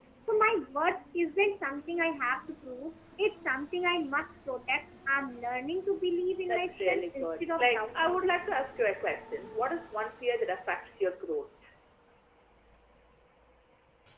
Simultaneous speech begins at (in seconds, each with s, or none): 6.5 s